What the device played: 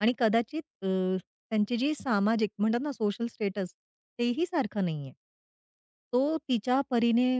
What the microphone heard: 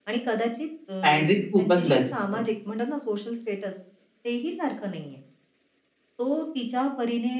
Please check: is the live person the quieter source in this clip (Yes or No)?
No